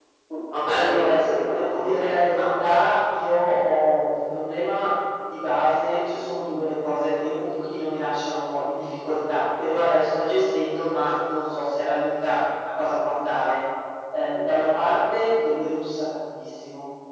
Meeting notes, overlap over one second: present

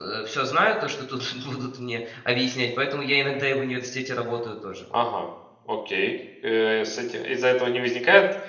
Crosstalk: none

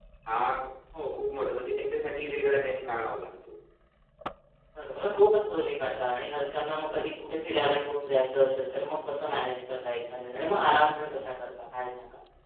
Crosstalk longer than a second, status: none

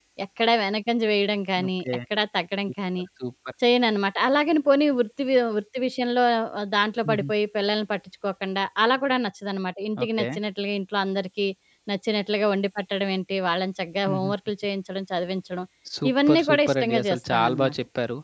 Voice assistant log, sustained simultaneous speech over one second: present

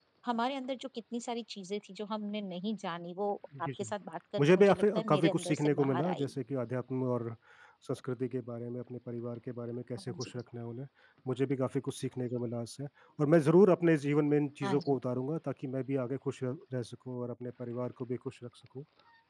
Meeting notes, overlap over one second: present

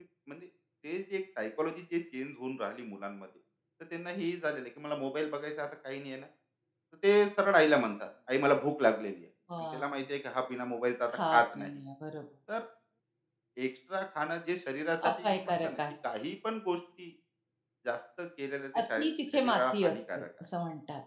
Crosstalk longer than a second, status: present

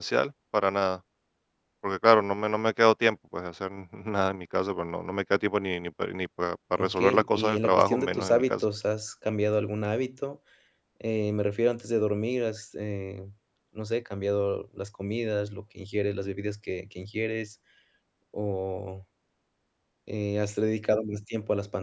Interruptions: present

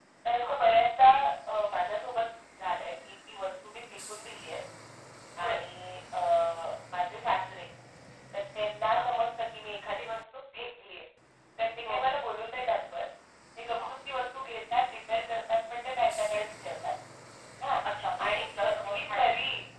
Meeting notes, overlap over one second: present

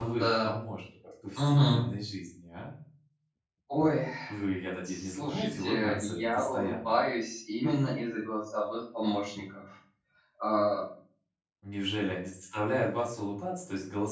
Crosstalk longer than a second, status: present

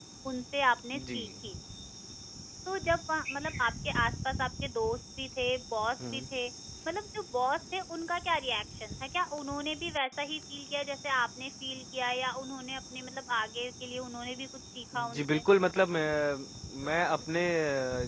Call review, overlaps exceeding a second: none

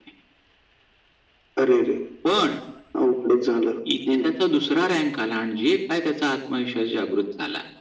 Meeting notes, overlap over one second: none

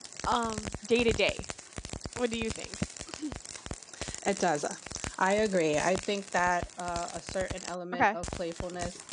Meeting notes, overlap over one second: none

